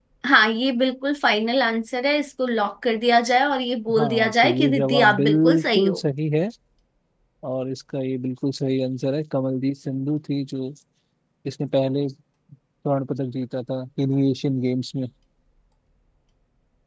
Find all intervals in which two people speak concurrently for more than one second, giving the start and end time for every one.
4.0-6.0

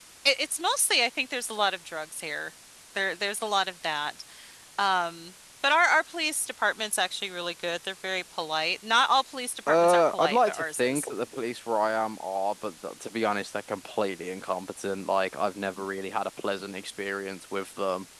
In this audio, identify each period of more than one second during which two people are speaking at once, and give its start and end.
9.7-11.1

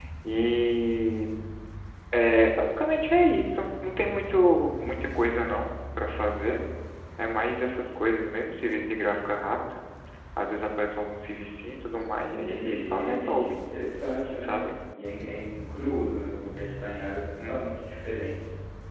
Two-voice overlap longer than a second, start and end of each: 12.3-13.6

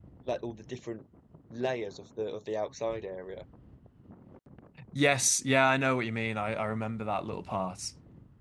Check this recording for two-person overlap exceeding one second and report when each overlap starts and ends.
none

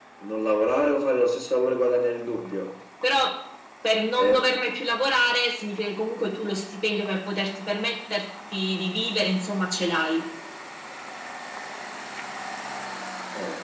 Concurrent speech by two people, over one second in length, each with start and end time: none

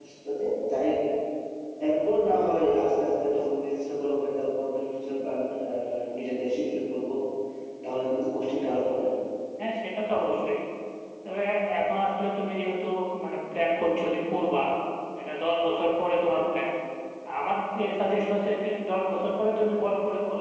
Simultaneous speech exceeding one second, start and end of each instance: none

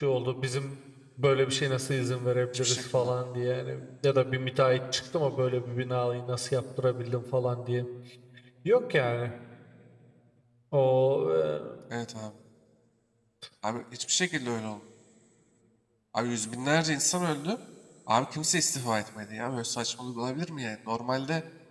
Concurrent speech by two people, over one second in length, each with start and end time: none

